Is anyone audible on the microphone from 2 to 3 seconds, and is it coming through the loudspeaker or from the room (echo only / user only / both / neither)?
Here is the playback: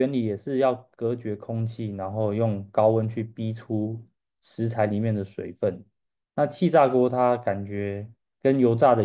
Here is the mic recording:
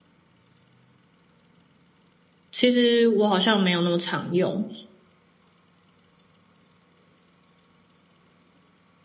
user only